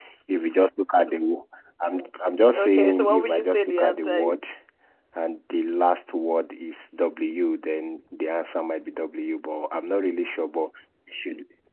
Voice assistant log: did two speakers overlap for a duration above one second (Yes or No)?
Yes